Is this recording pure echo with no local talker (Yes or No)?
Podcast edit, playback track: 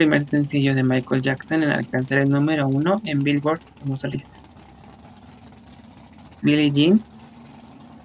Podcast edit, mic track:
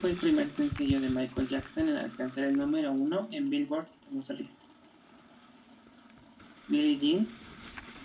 Yes